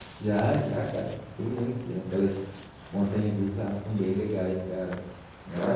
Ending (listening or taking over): taking over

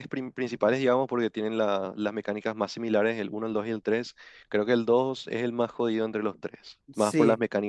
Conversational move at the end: taking over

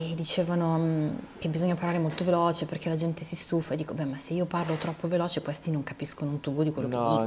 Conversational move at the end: taking over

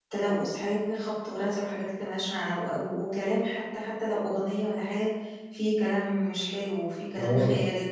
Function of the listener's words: taking over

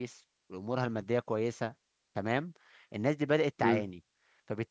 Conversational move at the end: listening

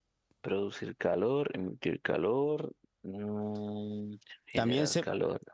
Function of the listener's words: taking over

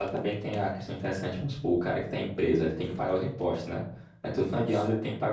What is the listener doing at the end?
listening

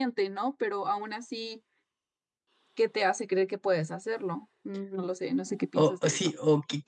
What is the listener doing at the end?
taking over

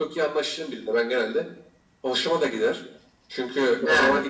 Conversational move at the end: listening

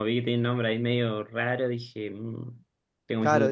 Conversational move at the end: taking over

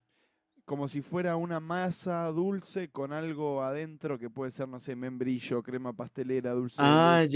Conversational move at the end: taking over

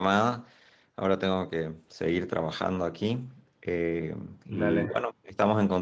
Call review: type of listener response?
listening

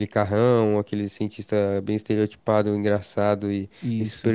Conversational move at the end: listening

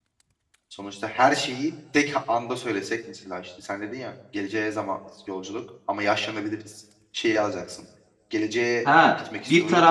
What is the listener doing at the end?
taking over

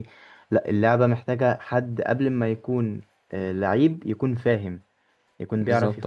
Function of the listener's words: listening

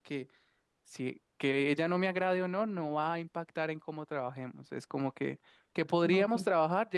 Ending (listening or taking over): listening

